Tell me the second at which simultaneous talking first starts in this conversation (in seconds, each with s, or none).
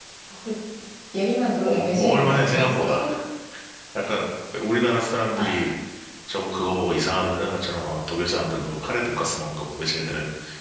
1.7 s